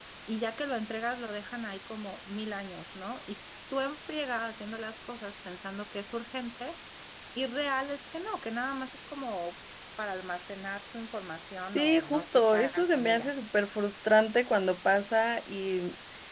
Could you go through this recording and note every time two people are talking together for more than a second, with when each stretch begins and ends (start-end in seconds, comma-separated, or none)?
11.8-13.3